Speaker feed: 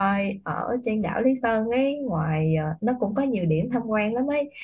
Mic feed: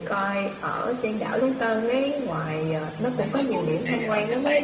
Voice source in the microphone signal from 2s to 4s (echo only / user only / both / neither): both